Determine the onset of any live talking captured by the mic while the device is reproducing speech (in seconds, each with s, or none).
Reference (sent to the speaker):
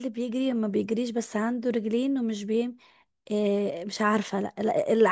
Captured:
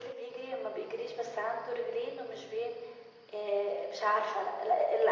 none